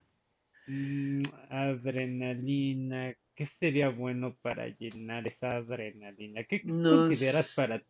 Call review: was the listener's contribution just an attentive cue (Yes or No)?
Yes